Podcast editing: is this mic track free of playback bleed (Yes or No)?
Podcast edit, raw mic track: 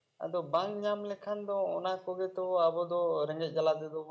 Yes